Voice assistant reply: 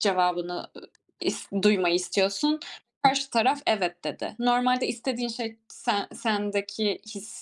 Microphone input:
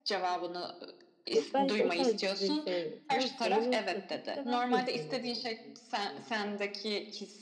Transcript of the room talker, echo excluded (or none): "Yok, ben, işte, o tarz dizileri sevmiyorum." Tamam, sevmiyorsun da bir gün de ben senin sevmediğin bir diziyi izleyebilirim.